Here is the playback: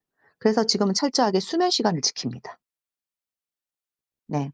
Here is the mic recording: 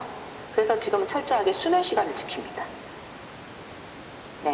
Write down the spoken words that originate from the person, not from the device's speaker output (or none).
none